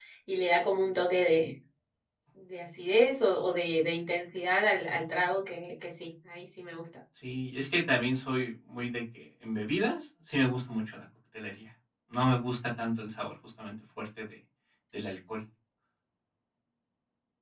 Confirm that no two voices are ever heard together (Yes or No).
Yes